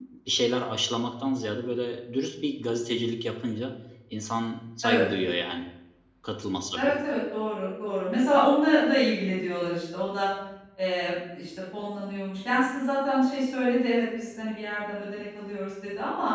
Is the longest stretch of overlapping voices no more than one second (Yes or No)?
Yes